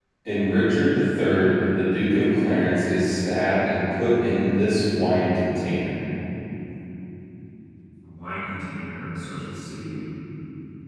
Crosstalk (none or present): none